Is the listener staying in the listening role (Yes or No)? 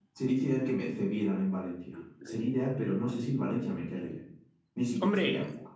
No